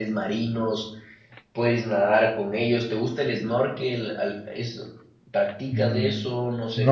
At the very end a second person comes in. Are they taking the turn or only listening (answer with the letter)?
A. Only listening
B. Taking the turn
B